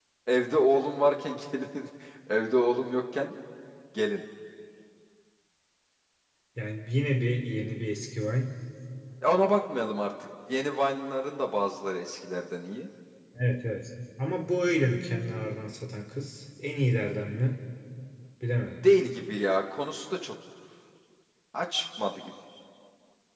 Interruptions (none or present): none